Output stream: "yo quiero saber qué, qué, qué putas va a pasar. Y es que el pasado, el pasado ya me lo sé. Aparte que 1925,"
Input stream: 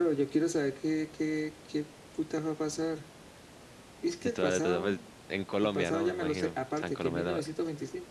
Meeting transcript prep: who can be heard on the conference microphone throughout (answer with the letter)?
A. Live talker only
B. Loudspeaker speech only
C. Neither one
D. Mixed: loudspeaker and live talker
D